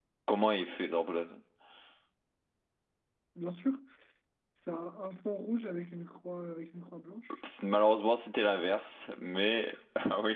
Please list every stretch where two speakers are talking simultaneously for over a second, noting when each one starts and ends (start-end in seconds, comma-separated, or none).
none